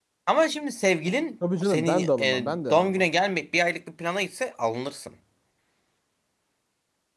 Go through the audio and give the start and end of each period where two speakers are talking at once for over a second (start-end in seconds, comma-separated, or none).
1.6-3.0